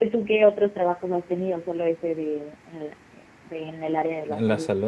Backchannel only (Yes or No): No